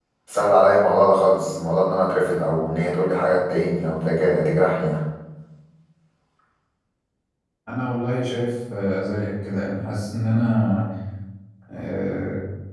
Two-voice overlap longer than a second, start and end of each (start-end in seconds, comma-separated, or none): none